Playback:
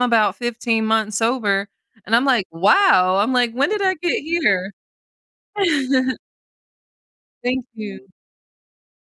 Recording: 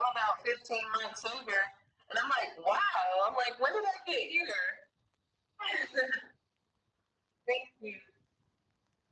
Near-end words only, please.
none

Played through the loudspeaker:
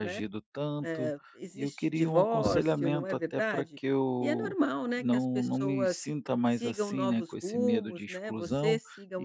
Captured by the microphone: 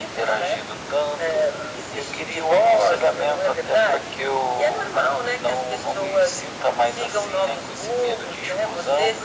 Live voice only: none

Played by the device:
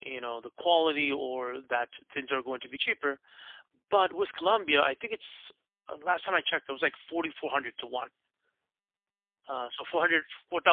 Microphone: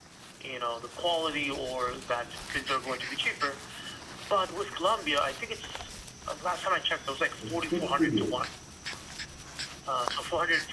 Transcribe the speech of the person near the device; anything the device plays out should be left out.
And good for you.

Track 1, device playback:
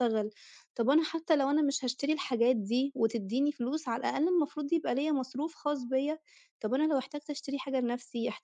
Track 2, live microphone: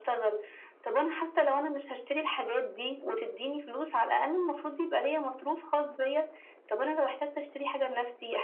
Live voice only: none

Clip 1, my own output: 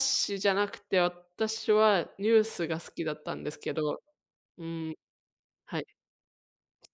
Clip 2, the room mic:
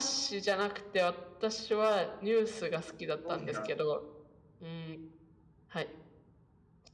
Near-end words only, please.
正直なと、

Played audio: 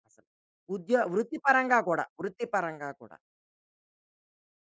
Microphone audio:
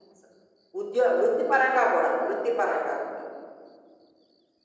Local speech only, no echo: none

